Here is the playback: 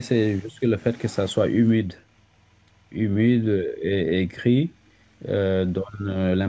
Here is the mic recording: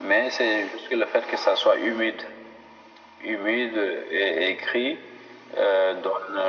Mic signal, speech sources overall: echo only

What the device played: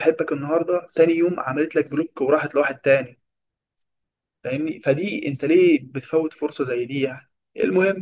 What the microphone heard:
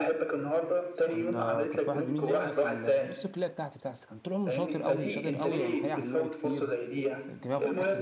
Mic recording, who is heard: both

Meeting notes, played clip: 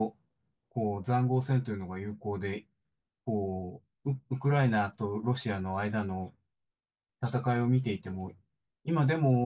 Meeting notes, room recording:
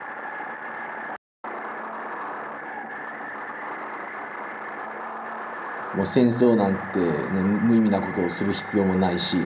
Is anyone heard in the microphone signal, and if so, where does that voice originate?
user only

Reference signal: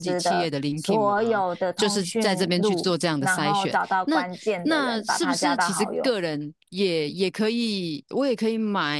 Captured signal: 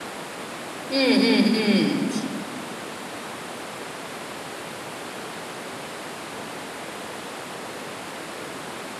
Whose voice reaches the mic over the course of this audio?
user only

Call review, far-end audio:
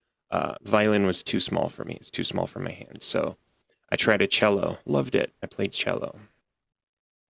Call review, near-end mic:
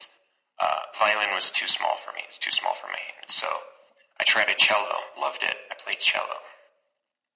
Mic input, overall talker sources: echo only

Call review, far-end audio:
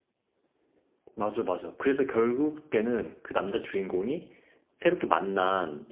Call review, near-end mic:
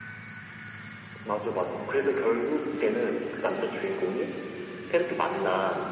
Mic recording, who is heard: echo only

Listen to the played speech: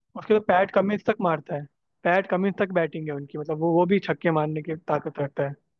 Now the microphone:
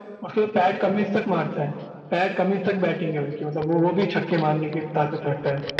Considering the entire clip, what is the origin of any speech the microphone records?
echo only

